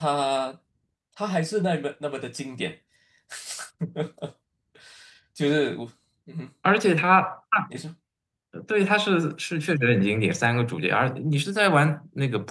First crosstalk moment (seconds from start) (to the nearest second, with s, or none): none